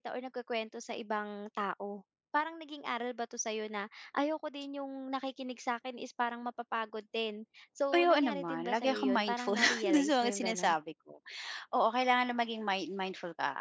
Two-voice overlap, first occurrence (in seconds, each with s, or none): 7.9 s